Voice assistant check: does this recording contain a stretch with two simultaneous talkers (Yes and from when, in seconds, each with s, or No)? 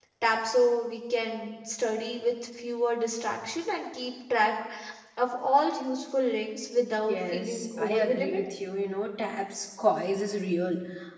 Yes, from 7.1 s